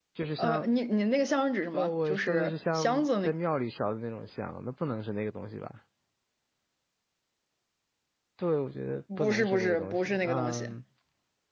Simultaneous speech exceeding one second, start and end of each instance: 1.7-3.3, 9.2-10.7

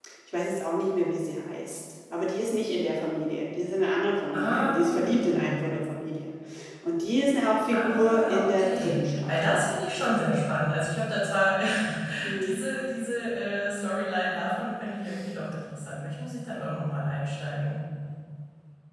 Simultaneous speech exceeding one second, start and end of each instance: 4.3-5.7, 7.7-9.6

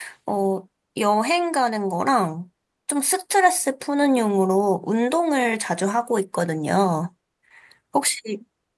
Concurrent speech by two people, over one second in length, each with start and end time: none

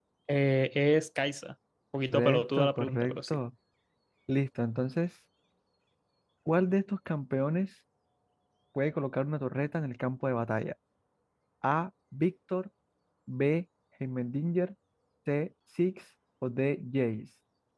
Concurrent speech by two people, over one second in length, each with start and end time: 2.1-3.4

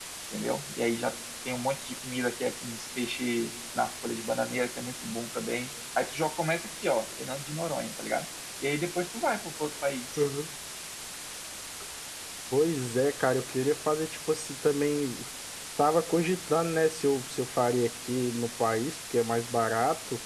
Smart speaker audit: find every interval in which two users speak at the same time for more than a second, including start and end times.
none

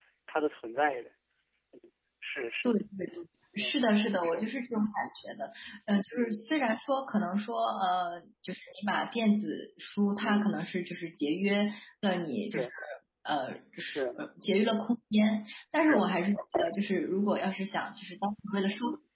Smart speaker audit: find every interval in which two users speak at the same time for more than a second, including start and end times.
none

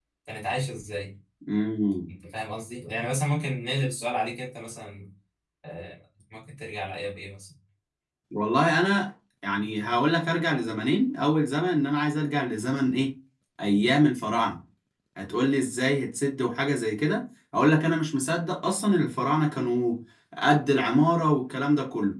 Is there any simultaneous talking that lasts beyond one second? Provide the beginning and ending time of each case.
none

